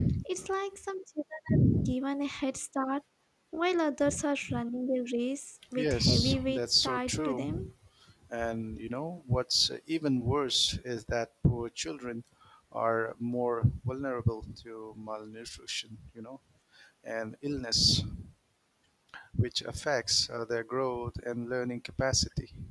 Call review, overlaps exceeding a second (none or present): present